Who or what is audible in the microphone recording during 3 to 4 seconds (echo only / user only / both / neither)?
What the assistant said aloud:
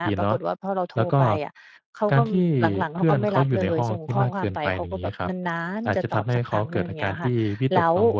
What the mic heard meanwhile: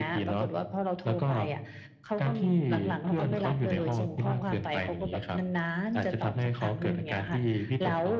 echo only